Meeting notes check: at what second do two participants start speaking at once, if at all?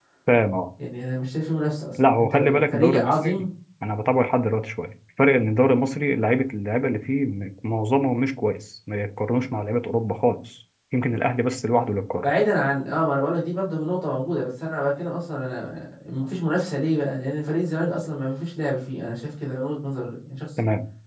2.0 s

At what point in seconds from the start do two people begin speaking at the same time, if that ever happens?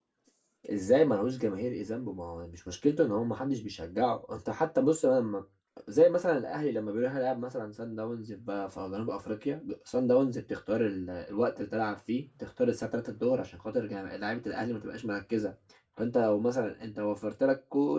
none

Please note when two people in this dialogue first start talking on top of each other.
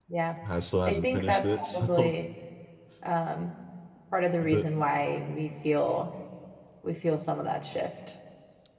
0.9 s

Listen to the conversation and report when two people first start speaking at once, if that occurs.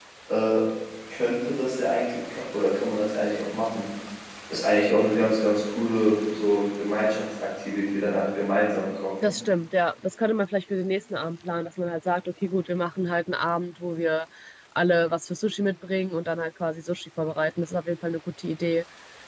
none

